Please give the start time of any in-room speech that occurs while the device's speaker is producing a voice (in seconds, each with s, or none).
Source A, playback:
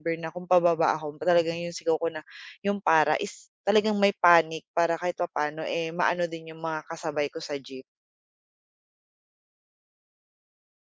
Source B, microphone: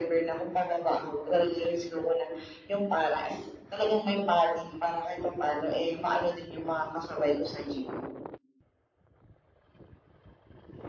none